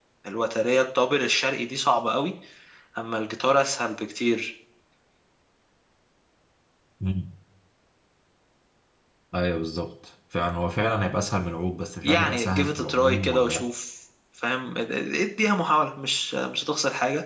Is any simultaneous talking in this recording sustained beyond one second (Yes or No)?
Yes